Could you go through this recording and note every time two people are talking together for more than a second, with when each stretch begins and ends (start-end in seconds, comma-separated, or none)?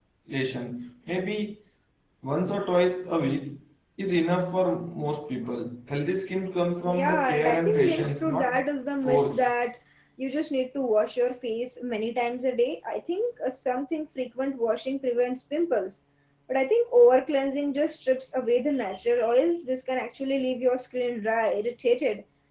6.8-8.6